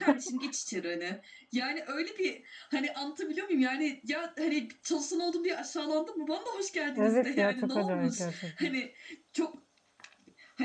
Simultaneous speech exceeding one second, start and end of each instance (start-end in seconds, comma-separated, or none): 7.0-8.7